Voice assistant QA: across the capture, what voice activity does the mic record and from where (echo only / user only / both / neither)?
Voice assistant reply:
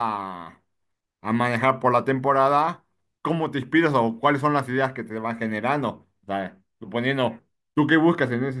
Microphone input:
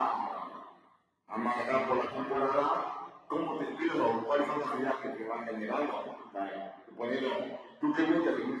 echo only